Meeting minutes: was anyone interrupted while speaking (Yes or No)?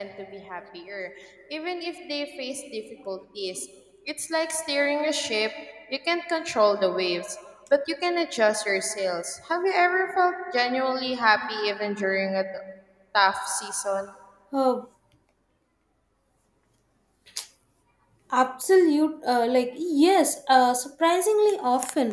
No